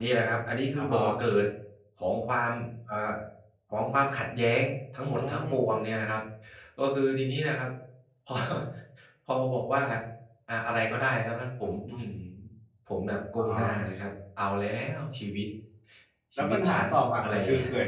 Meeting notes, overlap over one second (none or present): present